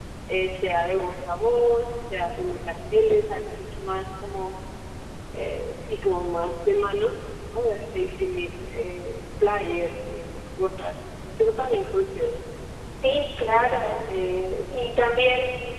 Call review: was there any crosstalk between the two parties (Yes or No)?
No